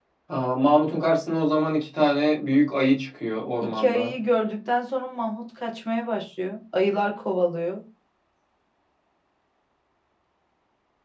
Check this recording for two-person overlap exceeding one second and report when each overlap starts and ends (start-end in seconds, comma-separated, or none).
none